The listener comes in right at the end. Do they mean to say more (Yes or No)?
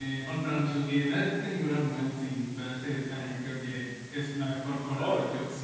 Yes